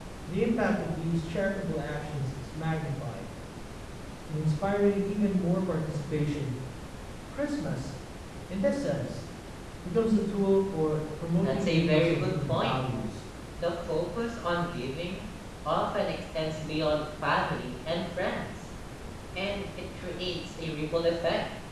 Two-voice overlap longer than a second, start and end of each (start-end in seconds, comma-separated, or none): 11.4-12.8